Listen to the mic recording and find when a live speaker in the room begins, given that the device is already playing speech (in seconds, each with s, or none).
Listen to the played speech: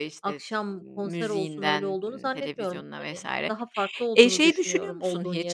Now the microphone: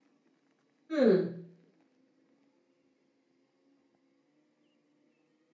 0.9 s